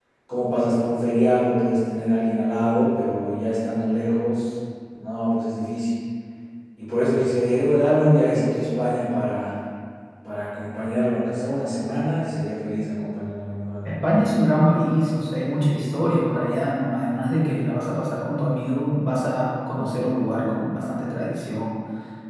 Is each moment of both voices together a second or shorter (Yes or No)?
Yes